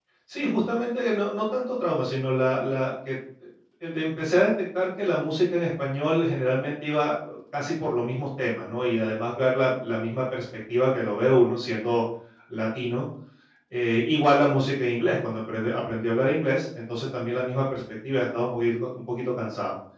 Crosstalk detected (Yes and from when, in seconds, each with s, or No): No